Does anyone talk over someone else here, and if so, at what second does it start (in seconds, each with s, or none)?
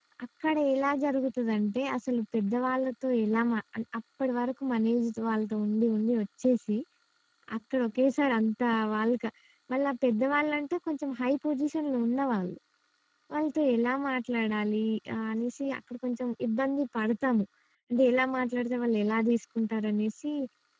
none